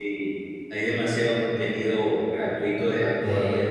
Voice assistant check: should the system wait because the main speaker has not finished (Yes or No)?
Yes